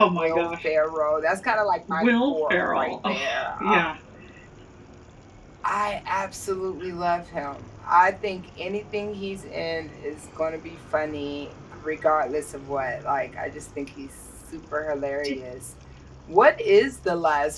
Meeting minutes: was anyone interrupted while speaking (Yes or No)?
Yes